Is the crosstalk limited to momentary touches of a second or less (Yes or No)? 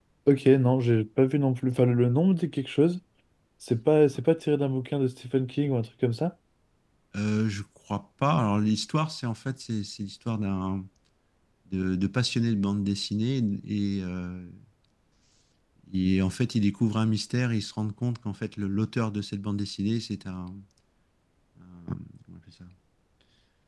Yes